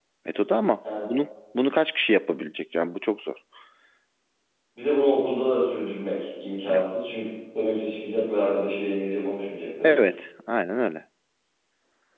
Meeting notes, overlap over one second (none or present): none